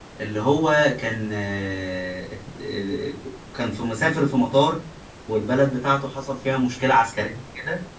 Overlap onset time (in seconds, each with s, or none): none